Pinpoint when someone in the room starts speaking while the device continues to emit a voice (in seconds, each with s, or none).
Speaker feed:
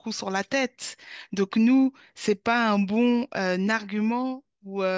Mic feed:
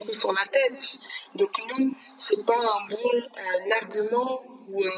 none